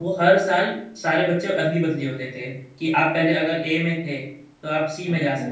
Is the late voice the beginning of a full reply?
No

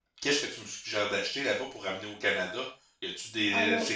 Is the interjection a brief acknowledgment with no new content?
Yes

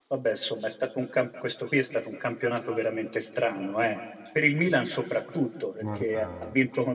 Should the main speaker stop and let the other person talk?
No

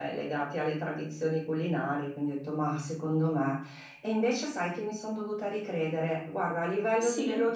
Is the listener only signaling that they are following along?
Yes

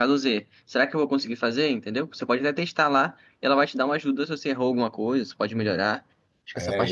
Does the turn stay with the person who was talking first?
No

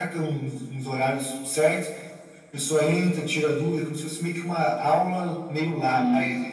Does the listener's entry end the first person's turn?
Yes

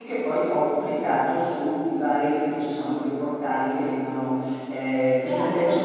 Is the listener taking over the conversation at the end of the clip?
No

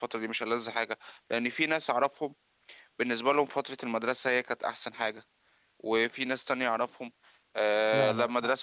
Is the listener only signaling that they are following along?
Yes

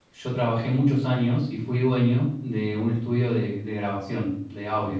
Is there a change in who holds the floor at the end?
No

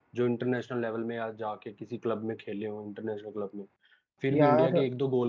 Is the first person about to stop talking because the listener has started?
No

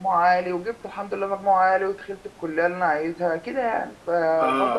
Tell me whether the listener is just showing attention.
No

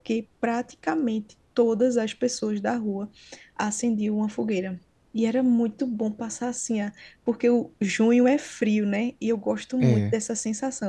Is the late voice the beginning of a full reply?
No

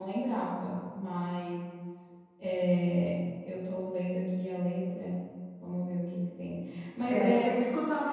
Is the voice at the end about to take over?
Yes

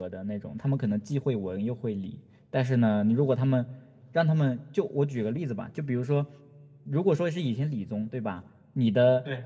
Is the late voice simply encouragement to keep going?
Yes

